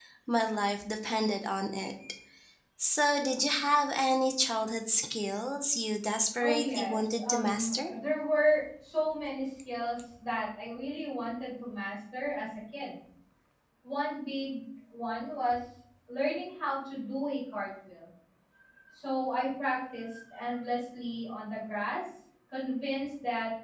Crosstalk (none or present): present